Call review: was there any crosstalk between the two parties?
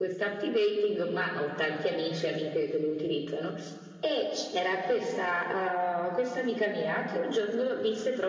No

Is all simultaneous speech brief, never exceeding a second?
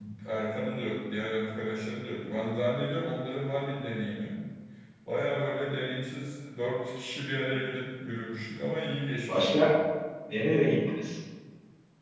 Yes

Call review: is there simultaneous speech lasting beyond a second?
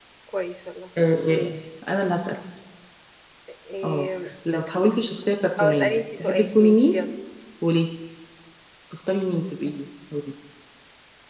Yes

